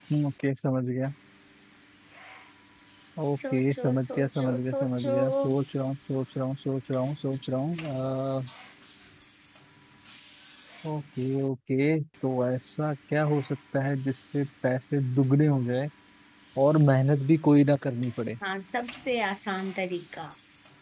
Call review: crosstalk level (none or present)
present